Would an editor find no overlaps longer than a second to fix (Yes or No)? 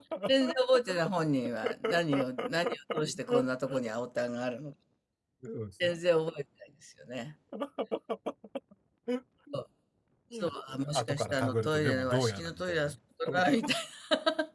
No